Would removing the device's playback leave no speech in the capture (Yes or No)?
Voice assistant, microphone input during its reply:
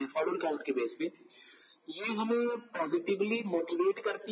Yes